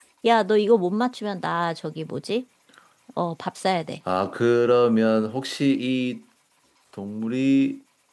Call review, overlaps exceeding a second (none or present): none